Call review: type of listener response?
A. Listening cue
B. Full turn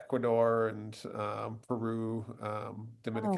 A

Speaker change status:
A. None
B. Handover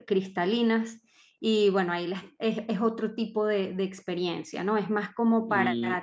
A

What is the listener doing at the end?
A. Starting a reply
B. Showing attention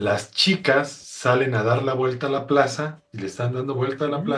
B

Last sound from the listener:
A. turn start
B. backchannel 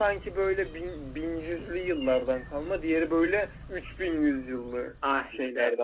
A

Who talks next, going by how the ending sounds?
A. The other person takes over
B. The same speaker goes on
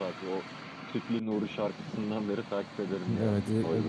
A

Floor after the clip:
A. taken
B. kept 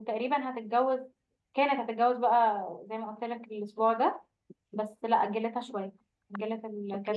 A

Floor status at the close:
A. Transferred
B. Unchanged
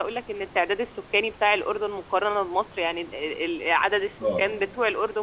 B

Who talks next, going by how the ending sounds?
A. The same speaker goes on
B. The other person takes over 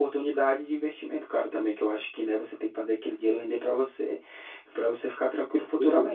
B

